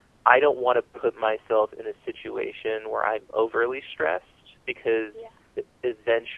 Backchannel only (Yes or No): Yes